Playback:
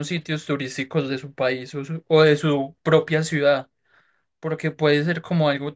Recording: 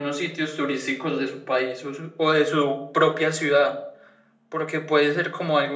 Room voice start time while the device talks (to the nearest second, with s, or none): none